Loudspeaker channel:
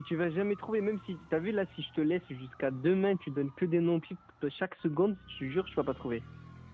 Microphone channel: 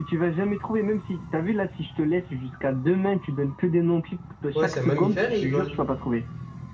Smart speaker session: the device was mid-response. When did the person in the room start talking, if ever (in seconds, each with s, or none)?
4.5 s